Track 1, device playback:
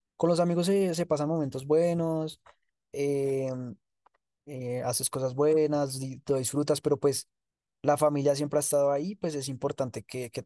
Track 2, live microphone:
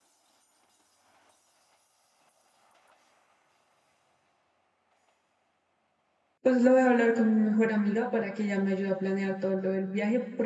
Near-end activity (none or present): present